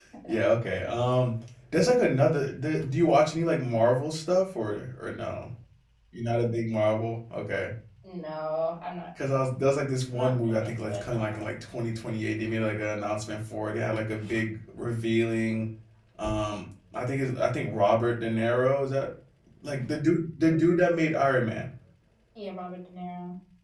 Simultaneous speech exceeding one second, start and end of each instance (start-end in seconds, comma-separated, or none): 10.1-11.6